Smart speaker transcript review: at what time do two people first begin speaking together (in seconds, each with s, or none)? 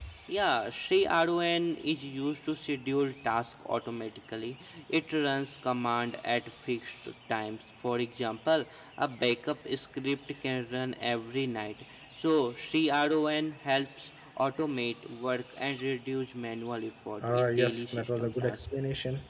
17.3 s